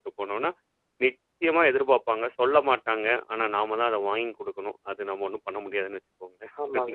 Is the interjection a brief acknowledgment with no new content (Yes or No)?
No